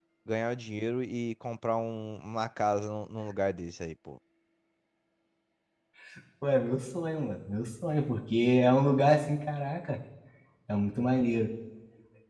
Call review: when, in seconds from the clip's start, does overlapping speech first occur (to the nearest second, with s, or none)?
none